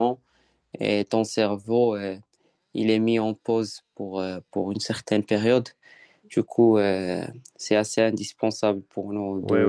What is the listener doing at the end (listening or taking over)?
taking over